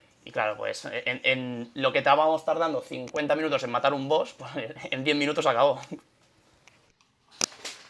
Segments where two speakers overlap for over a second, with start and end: none

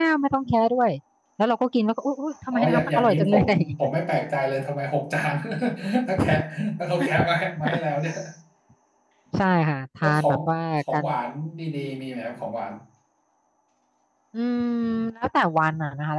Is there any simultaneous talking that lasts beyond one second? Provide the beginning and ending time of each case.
2.5-3.7

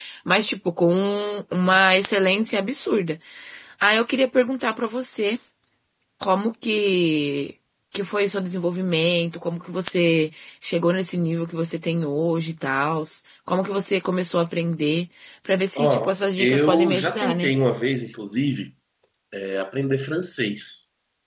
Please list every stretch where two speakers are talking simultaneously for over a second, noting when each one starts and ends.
15.8-17.5

